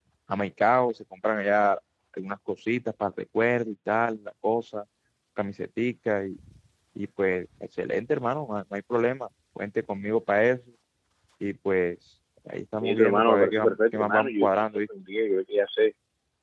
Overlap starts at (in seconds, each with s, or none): 12.8 s